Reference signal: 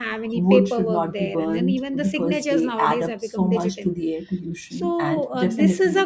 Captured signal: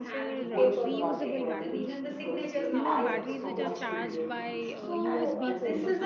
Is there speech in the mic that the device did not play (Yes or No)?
Yes